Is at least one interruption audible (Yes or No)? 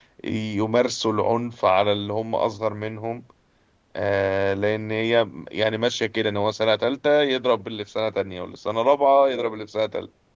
No